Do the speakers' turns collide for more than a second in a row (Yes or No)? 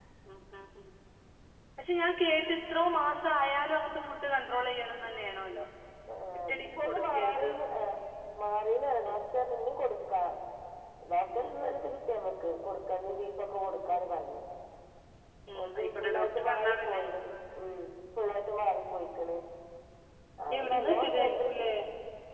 Yes